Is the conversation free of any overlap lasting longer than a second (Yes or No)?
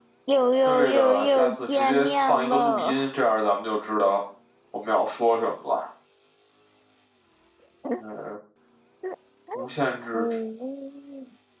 No